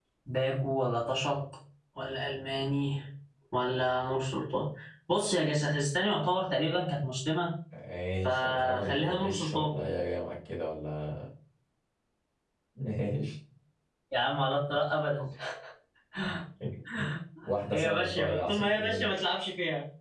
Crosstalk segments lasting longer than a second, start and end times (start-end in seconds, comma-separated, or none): 8.2-9.7, 17.7-19.1